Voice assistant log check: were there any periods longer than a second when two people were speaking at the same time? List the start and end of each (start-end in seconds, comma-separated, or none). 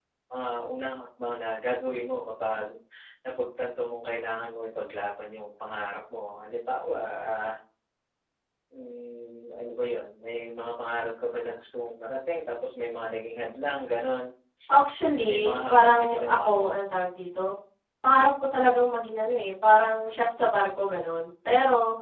15.2-16.8